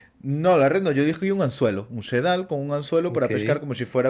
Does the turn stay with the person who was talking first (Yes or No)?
Yes